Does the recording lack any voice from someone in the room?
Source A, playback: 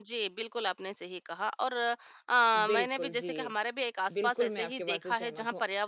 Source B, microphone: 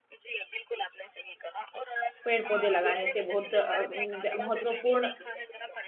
No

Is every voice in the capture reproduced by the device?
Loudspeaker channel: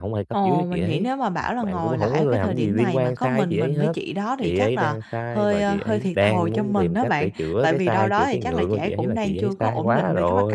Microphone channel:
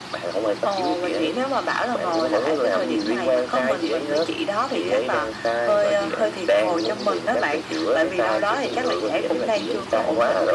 Yes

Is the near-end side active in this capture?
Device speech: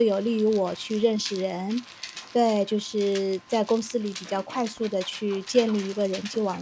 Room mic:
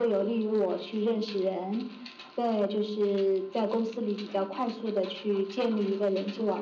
No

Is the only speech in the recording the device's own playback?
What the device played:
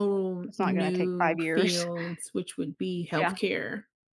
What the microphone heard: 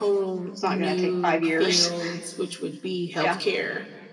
Yes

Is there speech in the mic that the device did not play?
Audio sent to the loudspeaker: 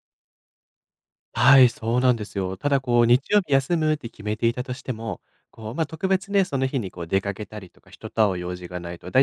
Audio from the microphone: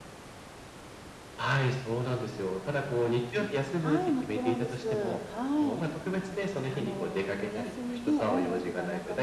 Yes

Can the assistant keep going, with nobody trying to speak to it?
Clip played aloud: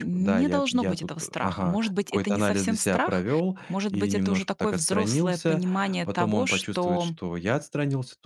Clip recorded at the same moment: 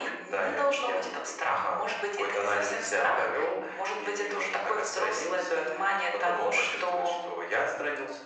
Yes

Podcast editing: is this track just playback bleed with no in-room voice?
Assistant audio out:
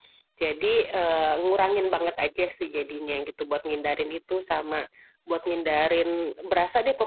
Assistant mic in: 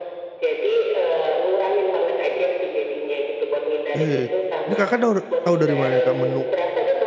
No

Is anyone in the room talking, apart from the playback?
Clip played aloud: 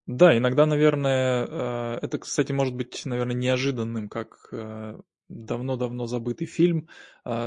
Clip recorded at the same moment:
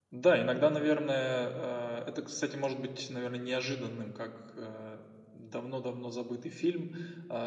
No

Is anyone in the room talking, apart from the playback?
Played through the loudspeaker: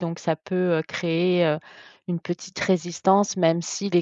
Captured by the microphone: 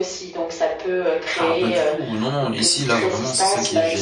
Yes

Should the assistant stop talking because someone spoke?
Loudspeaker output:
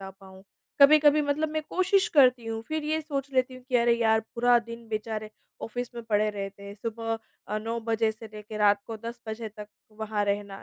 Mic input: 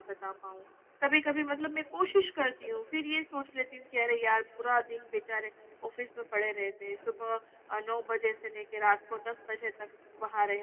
No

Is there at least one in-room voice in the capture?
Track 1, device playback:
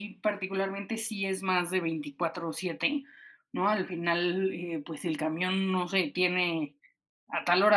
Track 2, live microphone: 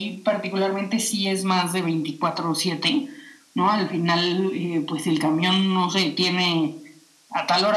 No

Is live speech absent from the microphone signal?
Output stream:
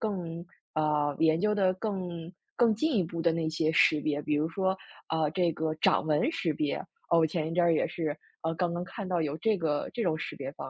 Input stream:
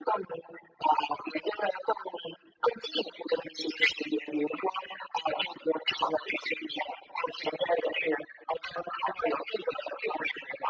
Yes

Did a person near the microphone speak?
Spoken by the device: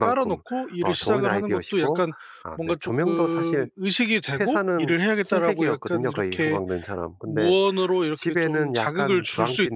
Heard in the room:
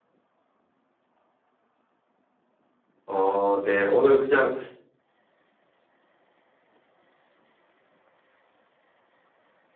Yes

